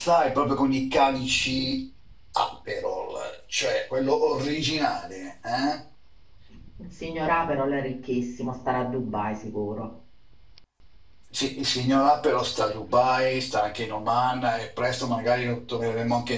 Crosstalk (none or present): none